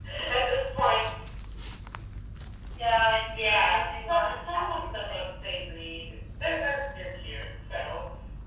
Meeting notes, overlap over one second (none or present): present